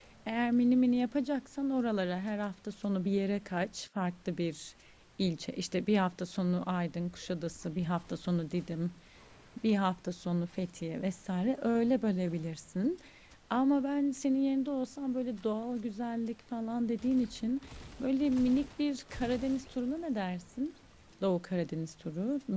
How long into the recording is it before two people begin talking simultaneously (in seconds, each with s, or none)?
none